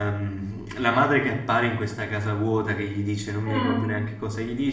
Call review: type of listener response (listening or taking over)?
listening